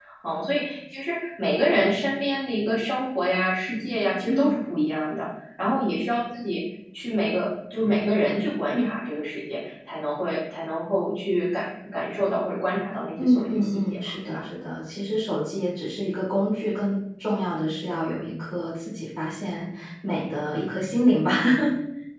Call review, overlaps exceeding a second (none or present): present